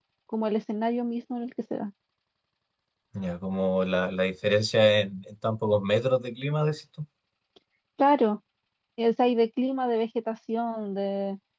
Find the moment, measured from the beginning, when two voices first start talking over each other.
none

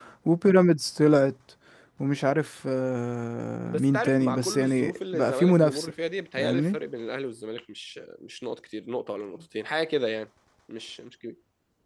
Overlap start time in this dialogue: 3.7 s

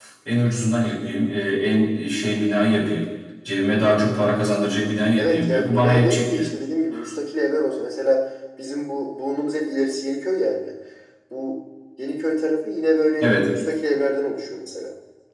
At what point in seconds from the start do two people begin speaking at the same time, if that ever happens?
5.2 s

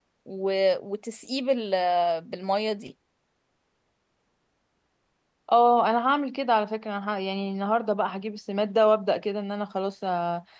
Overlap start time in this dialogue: none

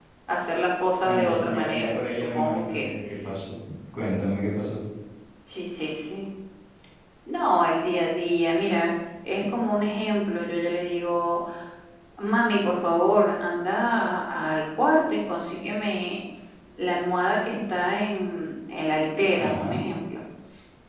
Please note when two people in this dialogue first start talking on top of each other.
1.1 s

